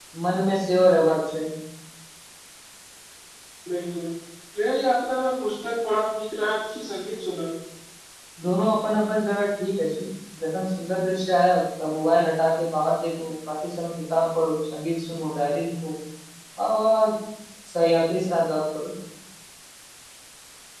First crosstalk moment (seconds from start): none

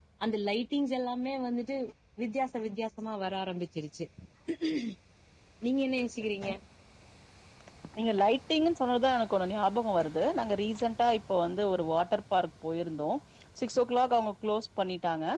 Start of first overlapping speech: none

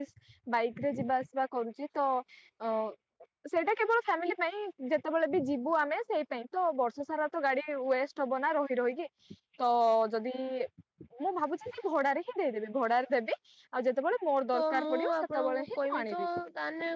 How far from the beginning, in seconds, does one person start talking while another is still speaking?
14.5 s

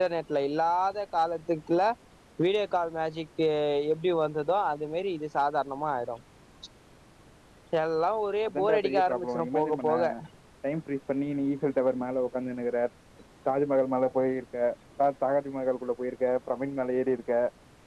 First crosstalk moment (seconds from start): 8.5 s

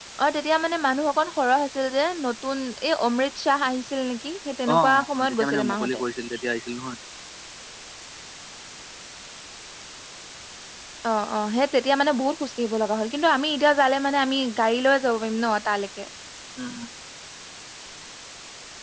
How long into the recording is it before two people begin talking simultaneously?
4.7 s

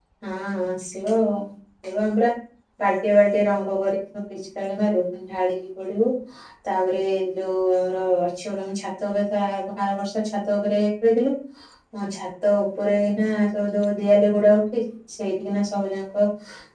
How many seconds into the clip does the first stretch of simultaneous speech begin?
none

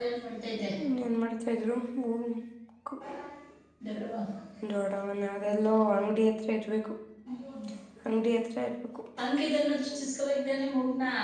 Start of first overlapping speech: none

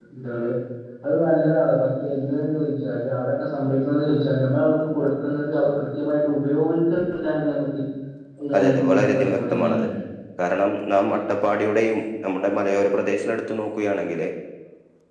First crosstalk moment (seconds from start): 8.6 s

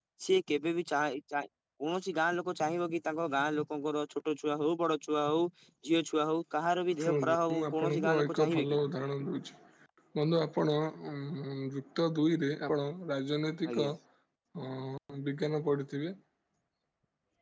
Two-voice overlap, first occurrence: 6.9 s

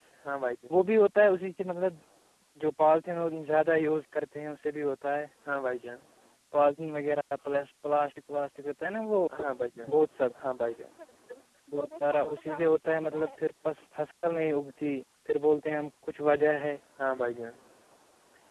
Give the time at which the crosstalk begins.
none

